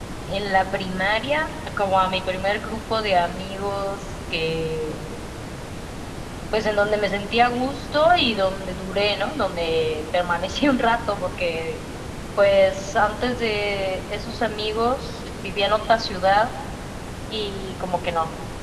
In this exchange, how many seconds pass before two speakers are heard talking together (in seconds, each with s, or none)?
none